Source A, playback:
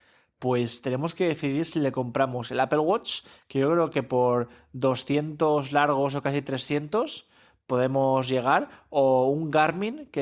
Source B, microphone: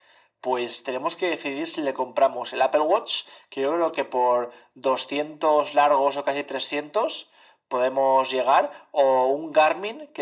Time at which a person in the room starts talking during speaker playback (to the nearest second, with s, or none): none